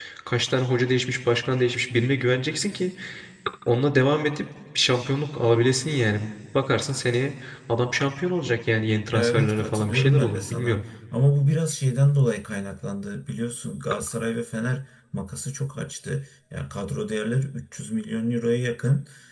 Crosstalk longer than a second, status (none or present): present